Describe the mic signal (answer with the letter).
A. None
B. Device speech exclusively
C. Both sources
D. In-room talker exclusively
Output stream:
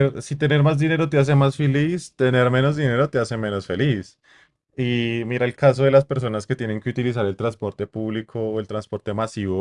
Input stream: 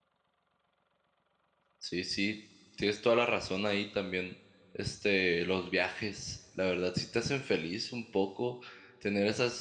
D